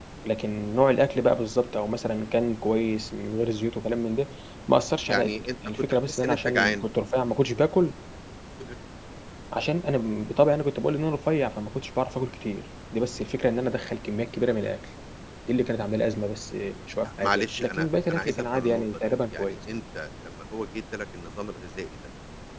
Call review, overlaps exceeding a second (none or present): present